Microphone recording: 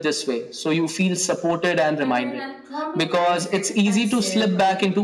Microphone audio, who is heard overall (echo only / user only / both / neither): both